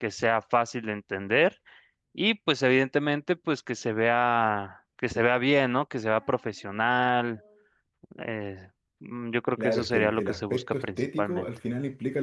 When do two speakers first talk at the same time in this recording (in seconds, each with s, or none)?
9.6 s